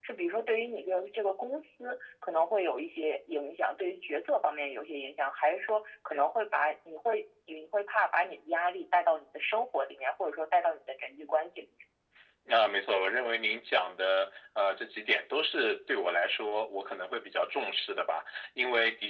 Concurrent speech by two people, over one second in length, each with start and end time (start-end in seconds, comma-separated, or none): none